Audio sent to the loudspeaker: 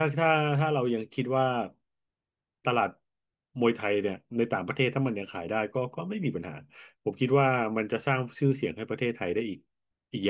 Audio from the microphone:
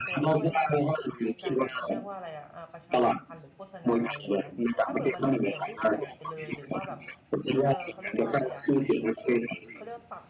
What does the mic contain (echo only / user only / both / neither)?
both